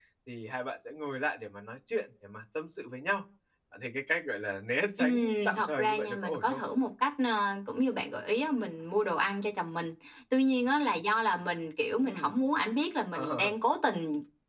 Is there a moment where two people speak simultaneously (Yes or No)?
Yes